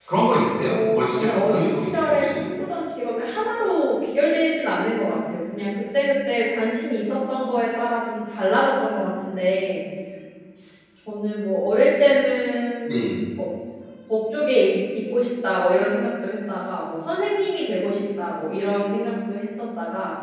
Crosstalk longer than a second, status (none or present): present